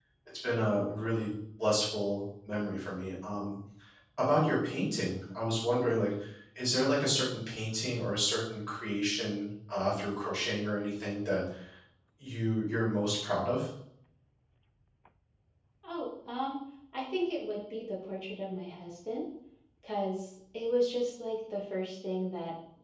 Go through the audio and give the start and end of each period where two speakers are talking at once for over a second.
none

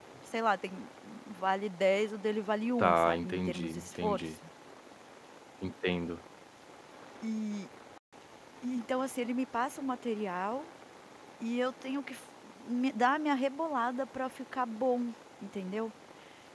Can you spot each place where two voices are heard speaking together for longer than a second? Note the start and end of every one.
2.8-4.3

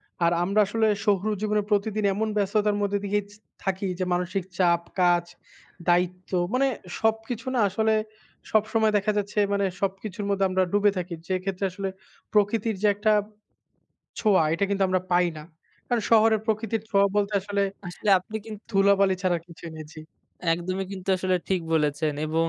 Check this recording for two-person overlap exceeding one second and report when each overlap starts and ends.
none

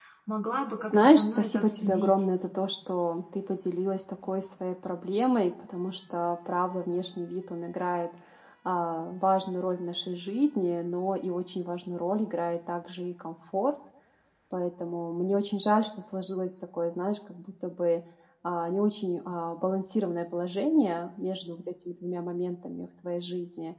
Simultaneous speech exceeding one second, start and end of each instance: 0.8-2.2

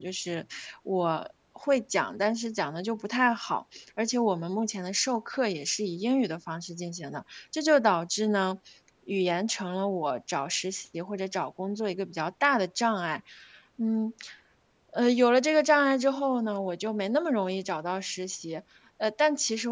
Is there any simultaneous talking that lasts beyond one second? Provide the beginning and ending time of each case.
none

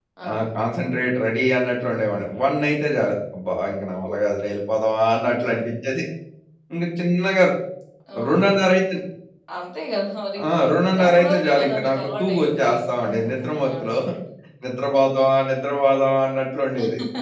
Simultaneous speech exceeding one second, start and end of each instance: 10.9-14.0

